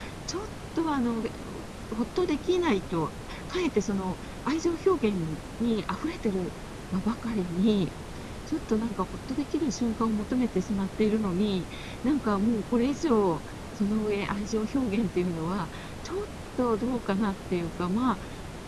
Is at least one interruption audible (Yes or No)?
No